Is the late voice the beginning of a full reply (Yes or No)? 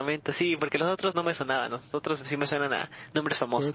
Yes